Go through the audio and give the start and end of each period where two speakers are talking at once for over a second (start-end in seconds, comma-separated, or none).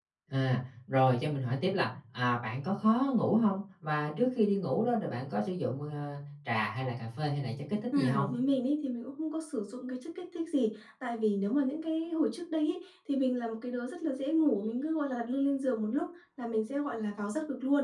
none